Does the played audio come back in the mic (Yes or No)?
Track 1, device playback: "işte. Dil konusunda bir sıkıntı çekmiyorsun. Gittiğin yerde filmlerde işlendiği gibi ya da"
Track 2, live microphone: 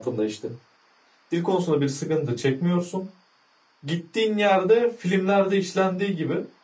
Yes